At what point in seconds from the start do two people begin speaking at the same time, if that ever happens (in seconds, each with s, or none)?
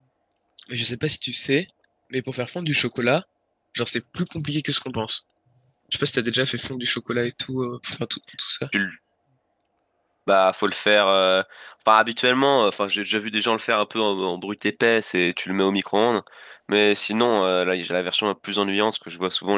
none